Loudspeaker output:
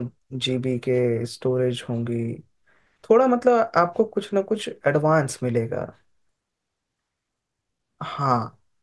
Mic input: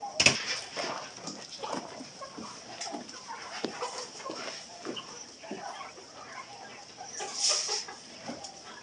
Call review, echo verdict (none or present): none